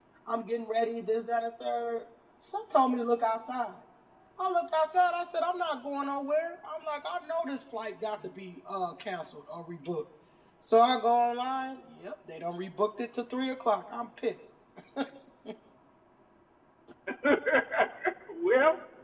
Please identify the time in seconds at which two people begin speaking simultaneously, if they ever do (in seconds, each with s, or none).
none